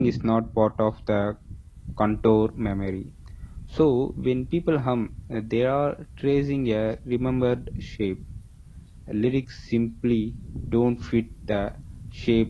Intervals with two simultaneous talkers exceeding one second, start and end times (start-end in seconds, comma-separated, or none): none